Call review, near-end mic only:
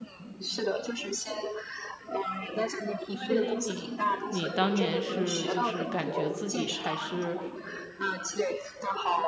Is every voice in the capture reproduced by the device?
No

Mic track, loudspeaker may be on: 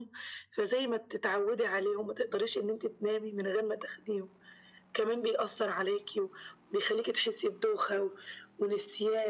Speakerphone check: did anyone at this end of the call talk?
No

